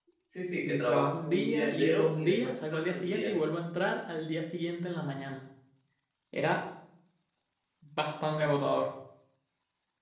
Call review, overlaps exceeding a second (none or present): present